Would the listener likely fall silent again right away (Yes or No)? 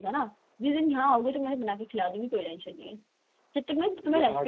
Yes